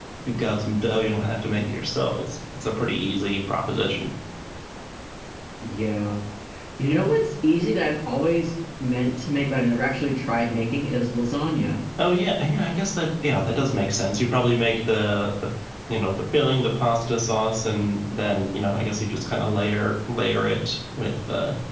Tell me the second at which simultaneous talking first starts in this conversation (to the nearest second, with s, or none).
none